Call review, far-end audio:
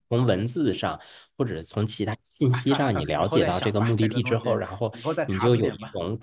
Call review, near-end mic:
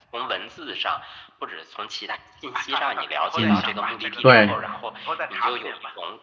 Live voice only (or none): 嗯，对，